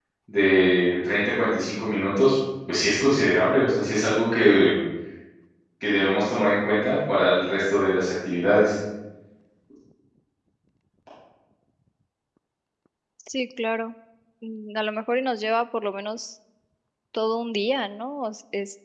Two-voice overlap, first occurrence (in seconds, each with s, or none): none